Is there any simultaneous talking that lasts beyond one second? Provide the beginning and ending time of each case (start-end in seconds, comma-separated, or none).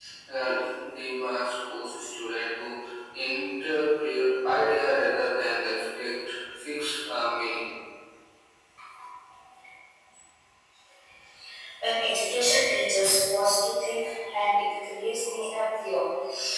none